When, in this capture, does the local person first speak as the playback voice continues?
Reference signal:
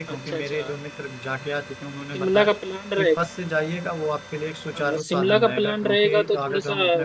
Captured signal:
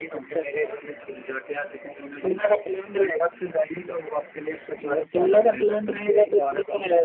none

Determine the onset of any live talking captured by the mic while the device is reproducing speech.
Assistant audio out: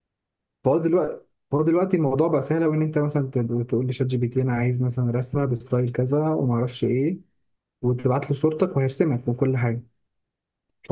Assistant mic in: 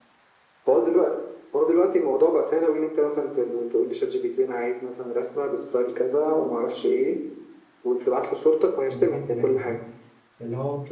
8.8 s

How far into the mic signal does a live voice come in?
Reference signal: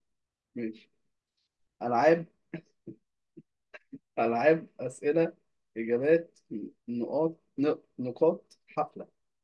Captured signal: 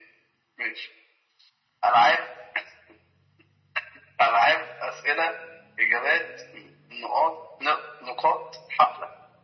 none

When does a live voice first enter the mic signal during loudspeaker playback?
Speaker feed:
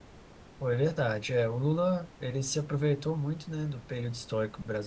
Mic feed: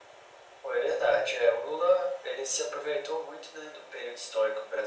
none

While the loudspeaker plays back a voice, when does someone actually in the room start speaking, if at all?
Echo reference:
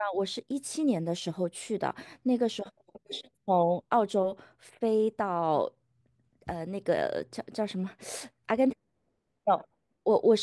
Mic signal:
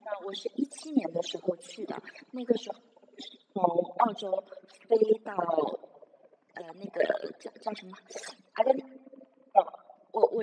none

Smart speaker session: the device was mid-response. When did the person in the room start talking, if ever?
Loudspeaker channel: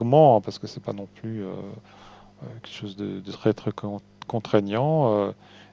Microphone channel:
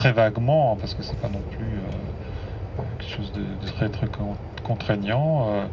none

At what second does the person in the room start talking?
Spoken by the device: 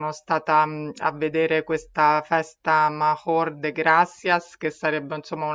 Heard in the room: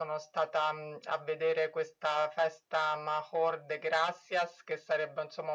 none

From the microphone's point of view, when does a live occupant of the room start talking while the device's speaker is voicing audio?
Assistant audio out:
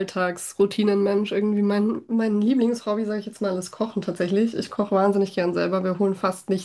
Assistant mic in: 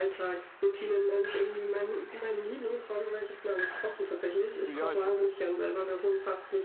4.6 s

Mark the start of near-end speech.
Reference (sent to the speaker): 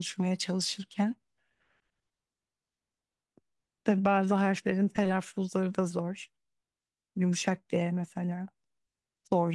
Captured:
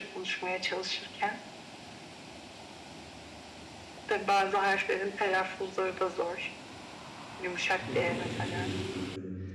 7.7 s

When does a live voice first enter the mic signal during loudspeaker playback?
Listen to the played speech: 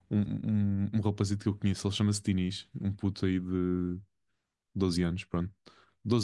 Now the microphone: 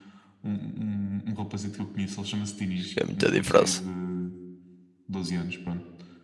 2.7 s

